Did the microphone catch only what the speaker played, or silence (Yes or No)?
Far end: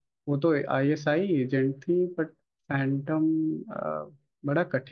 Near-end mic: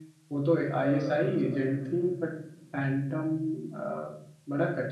No